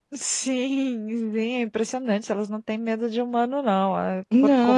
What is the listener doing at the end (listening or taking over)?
taking over